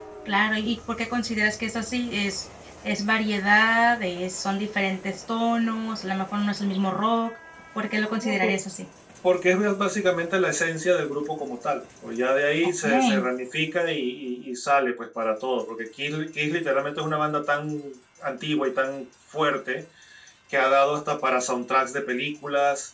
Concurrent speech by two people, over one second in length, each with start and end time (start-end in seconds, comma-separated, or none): none